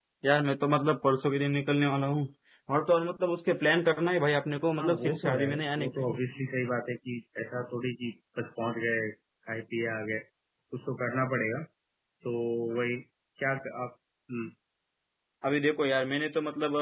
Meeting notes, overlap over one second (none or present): present